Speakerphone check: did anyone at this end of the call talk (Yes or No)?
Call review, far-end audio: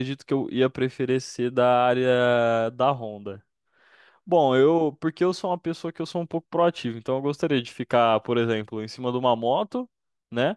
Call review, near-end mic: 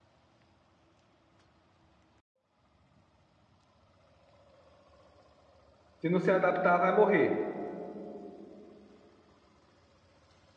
Yes